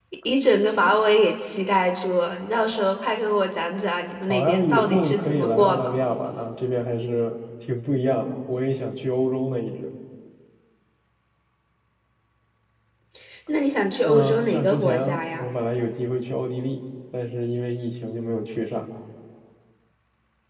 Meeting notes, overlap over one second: present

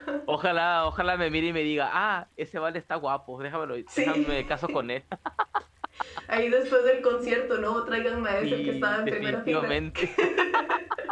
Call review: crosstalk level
present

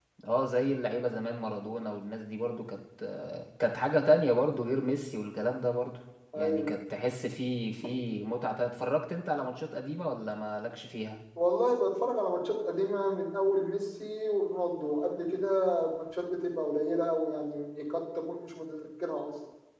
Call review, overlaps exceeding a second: none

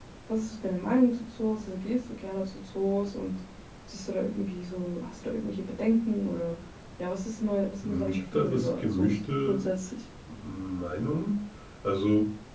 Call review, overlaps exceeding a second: present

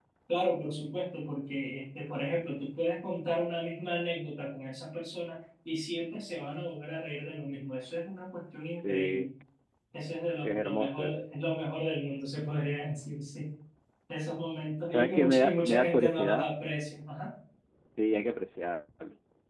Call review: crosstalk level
present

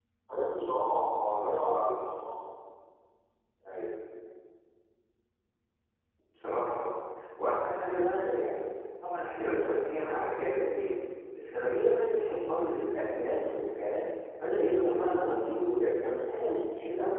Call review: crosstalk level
none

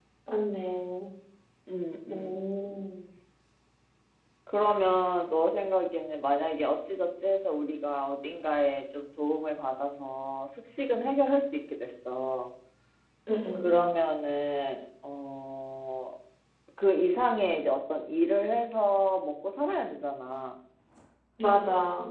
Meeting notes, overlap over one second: none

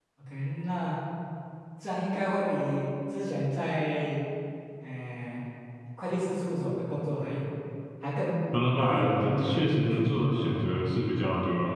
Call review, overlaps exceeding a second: present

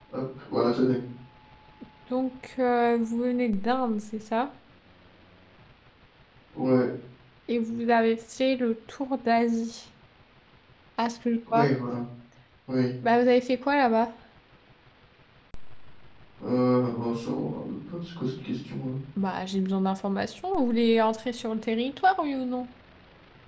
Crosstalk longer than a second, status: none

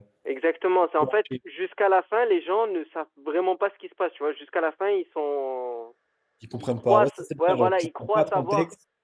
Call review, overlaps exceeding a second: present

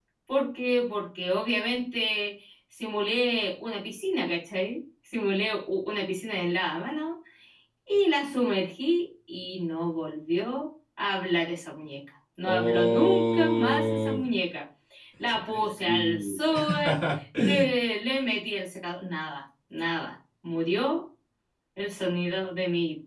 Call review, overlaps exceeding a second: present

